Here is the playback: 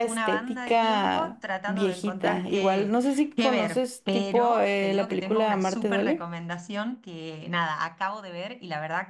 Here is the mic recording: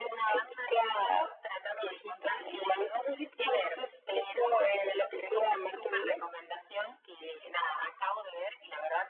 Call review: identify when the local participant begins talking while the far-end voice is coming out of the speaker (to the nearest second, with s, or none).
none